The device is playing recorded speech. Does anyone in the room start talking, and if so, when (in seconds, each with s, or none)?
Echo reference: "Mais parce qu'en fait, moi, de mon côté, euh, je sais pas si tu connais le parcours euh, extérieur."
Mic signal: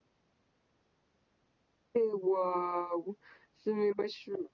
1.9 s